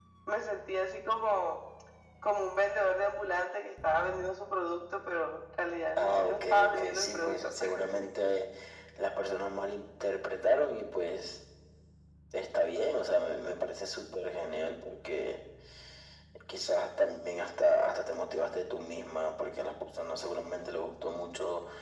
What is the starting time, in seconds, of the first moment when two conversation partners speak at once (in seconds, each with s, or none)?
6.0 s